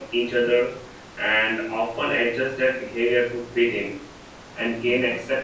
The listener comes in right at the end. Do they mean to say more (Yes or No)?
No